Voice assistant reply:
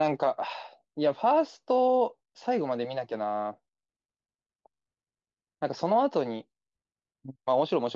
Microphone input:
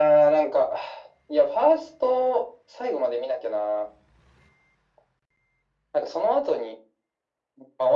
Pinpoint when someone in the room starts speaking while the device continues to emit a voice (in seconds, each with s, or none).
none